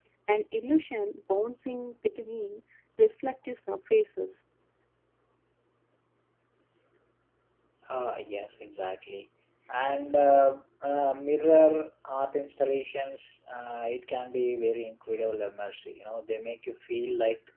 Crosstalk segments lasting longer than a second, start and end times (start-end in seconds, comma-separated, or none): none